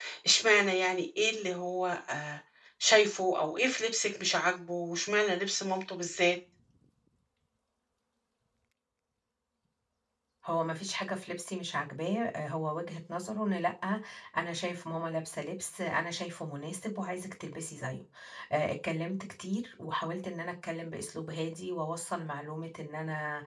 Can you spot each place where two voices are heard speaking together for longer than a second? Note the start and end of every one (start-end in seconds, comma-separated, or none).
none